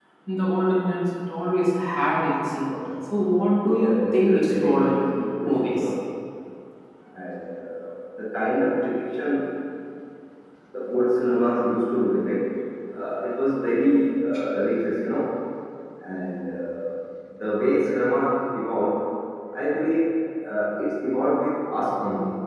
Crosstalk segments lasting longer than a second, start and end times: 3.8-5.0

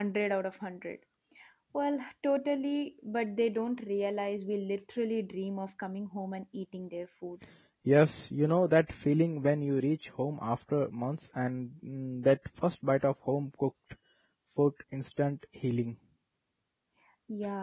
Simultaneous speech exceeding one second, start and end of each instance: none

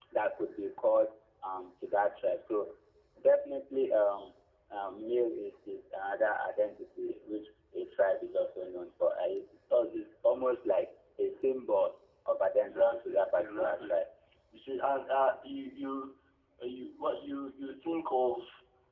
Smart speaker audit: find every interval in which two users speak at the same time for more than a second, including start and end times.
12.6-14.0

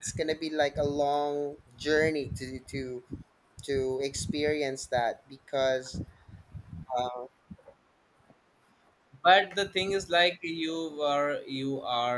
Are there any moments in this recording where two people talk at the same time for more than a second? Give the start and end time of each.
none

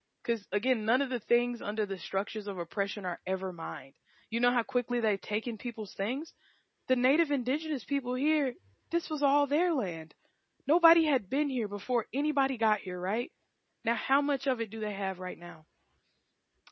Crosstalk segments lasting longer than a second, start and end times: none

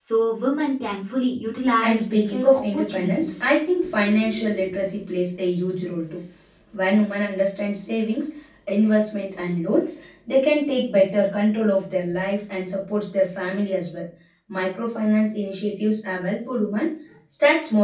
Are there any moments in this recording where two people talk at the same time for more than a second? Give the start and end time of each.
1.8-3.4

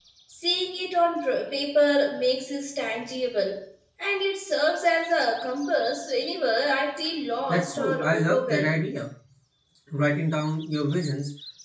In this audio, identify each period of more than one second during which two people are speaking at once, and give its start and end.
7.5-8.8

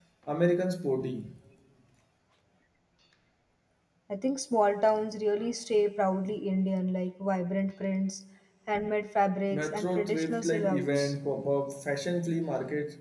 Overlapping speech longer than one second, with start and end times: 9.5-11.1

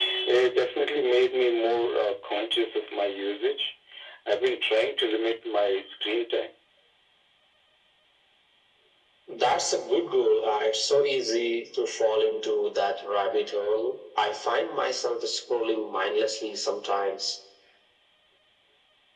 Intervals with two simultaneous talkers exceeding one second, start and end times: none

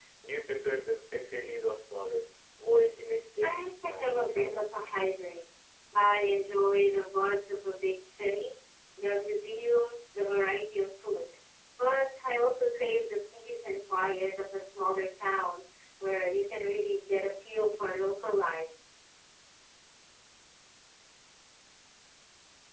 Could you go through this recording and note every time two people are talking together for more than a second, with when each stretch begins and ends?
3.4-4.7

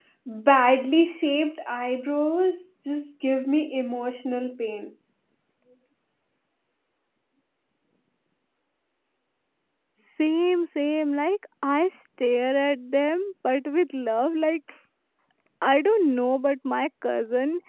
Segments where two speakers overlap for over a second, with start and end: none

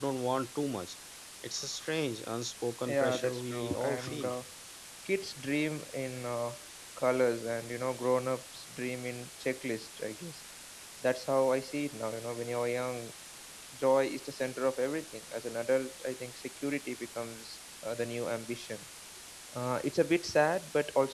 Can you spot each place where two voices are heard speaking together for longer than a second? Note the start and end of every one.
2.9-4.3

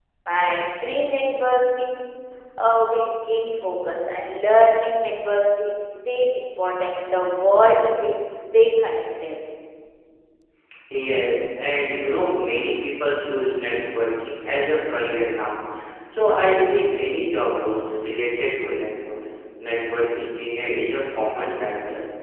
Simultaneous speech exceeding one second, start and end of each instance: none

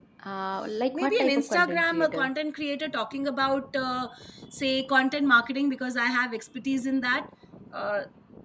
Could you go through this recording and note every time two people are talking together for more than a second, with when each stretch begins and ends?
0.9-2.3

